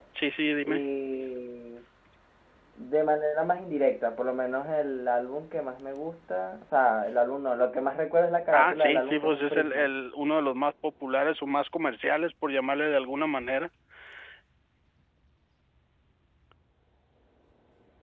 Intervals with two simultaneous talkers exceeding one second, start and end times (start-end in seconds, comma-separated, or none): 8.5-9.9